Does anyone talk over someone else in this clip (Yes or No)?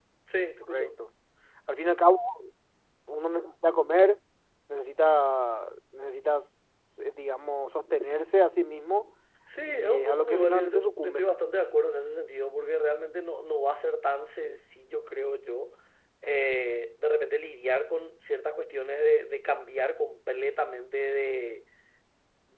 Yes